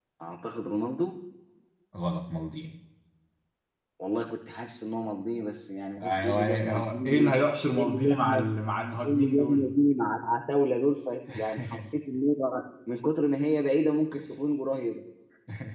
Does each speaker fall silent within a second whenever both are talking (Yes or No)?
No